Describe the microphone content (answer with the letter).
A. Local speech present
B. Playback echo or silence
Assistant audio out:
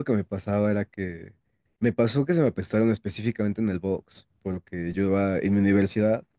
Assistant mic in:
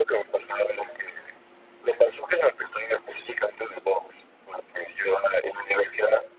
B